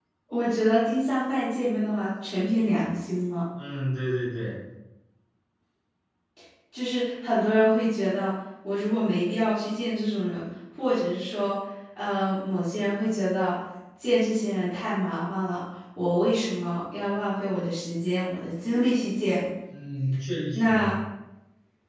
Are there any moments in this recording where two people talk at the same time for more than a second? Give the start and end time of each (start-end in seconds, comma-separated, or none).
none